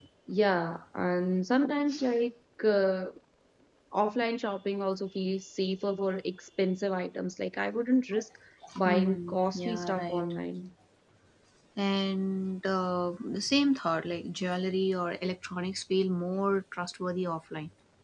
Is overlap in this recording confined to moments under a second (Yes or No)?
No